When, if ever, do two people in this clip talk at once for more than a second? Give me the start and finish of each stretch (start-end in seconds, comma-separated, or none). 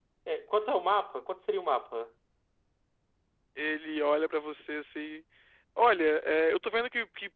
none